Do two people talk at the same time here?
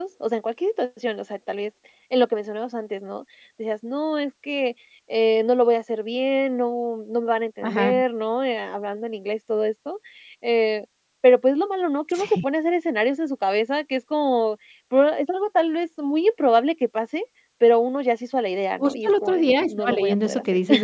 Yes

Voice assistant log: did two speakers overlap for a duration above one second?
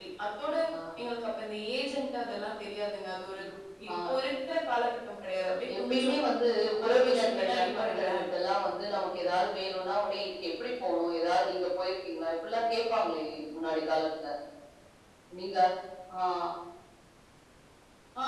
Yes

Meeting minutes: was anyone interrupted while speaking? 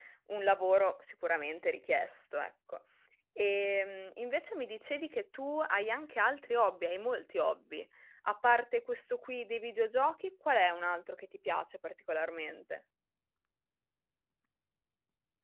No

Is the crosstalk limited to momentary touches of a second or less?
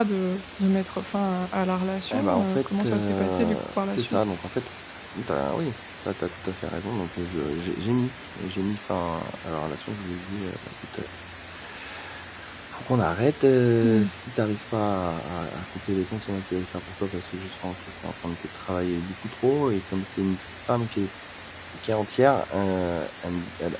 No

